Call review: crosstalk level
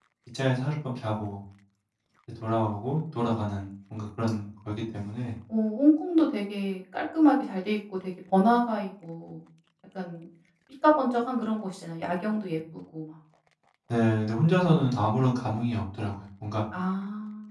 none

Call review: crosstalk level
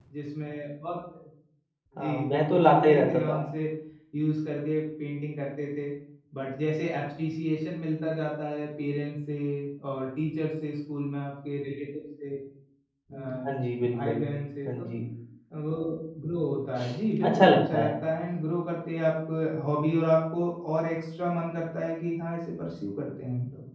present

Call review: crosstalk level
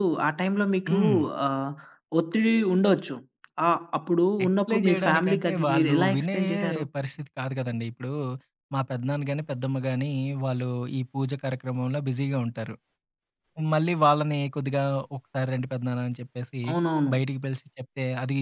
present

